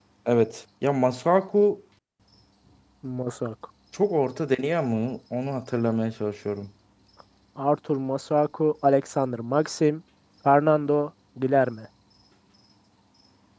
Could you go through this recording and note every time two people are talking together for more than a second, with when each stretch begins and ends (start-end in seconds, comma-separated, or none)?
none